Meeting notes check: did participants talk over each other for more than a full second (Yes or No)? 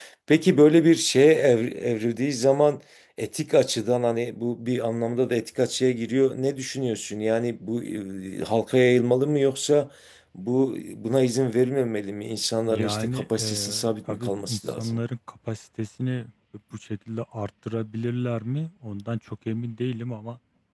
Yes